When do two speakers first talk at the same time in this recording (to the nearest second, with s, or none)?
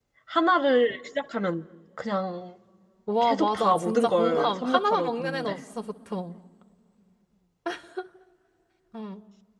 3 s